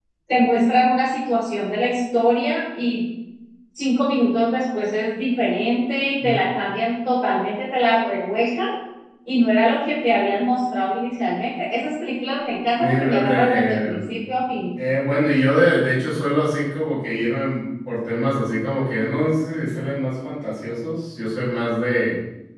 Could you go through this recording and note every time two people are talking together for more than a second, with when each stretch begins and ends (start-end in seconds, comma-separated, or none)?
12.8-14.2